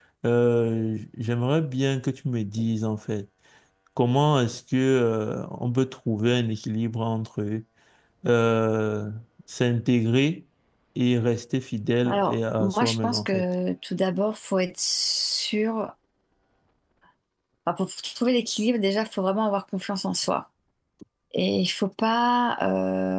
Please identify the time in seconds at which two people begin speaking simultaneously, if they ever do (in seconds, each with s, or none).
12.0 s